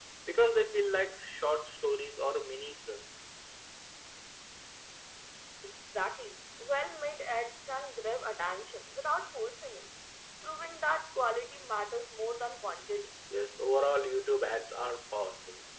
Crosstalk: none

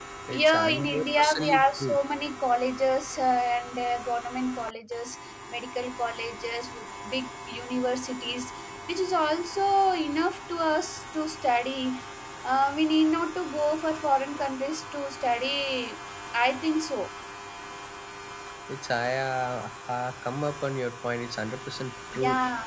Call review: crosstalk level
present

